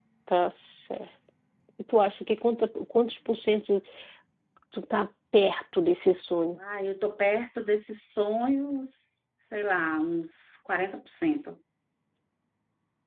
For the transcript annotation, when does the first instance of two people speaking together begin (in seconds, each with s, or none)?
none